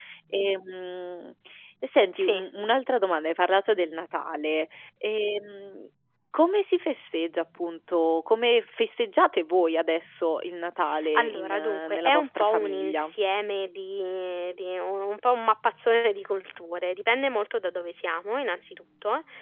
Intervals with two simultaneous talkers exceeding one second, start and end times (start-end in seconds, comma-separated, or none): 11.2-13.1